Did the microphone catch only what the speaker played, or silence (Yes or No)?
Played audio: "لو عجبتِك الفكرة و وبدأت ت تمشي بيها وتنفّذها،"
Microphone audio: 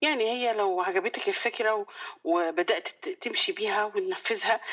Yes